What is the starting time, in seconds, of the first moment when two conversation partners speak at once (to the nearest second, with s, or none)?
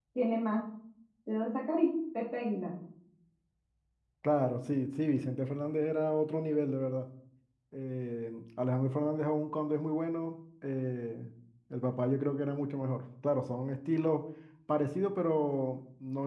none